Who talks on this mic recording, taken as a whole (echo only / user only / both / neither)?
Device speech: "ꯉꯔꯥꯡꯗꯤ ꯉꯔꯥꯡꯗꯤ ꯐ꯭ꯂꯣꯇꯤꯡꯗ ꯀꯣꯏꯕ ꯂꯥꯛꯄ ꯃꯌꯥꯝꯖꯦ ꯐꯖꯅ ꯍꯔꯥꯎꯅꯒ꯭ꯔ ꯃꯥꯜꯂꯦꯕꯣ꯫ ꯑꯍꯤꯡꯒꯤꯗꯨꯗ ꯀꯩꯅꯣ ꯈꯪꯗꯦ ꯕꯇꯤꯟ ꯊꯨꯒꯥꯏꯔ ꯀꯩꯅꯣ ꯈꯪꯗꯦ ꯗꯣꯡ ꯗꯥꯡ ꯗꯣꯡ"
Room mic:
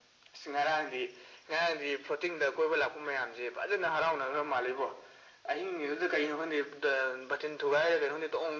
echo only